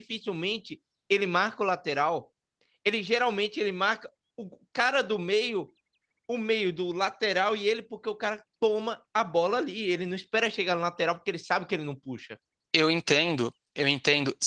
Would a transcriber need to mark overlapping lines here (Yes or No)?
No